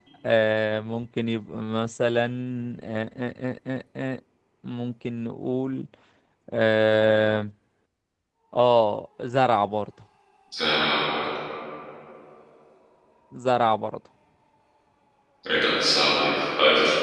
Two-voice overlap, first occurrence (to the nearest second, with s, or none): none